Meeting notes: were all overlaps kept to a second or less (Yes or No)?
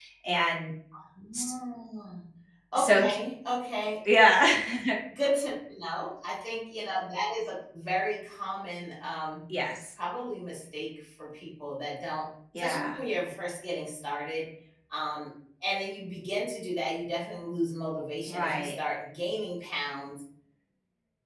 Yes